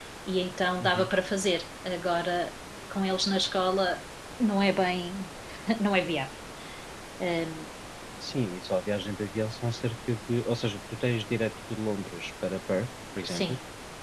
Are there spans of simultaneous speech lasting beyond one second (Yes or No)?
No